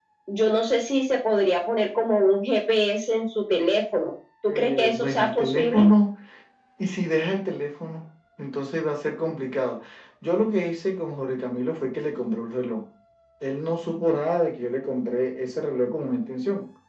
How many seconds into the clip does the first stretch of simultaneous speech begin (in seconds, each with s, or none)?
4.5 s